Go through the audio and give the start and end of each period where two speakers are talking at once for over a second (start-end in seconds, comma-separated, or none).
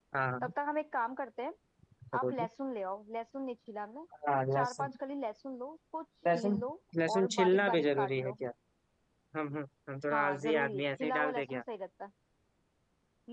7.1-8.4, 10.1-11.6